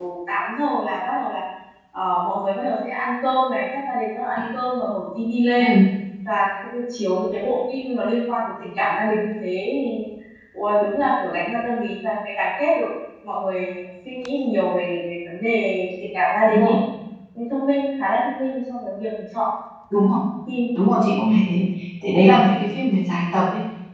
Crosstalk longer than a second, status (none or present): none